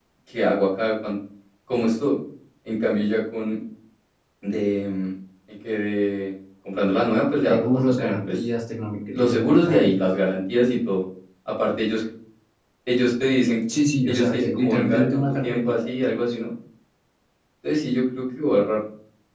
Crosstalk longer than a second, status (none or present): present